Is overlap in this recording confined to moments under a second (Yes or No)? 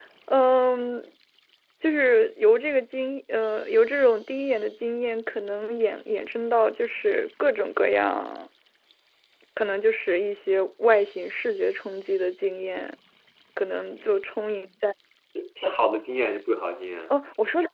Yes